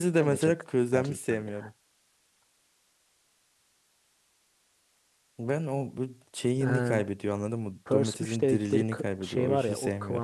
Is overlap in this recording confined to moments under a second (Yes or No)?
No